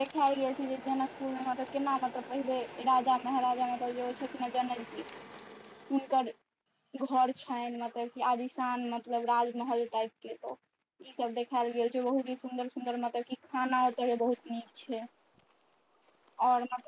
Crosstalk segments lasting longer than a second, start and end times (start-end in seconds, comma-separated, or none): none